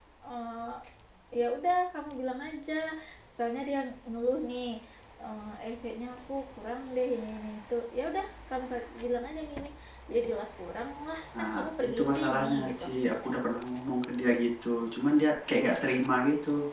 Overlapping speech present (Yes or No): Yes